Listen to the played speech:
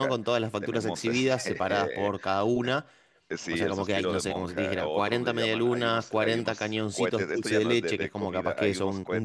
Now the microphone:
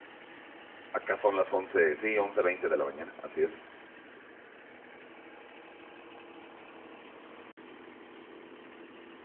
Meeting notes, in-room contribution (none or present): present